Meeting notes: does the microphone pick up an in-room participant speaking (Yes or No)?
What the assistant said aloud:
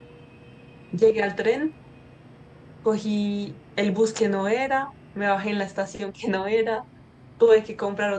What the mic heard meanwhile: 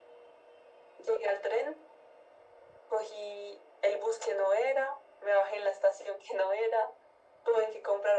No